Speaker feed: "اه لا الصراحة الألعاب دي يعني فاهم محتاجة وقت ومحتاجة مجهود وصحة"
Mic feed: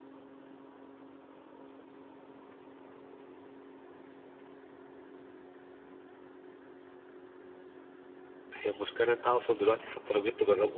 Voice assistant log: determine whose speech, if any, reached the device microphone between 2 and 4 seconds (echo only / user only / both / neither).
neither